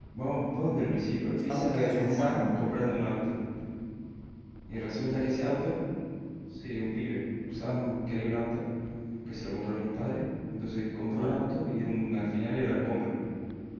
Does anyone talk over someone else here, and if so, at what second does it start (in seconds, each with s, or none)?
1.4 s